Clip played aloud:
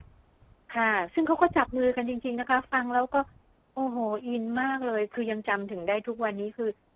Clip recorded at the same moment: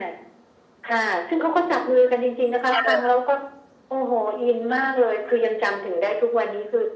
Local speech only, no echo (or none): ค่ะ